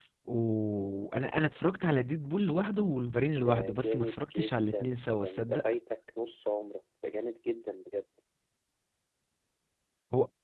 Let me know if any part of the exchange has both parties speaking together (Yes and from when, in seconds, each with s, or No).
Yes, from 3.4 s